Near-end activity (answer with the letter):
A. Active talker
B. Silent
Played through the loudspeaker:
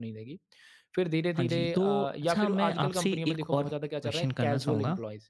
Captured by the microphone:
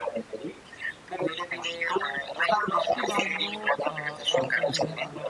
A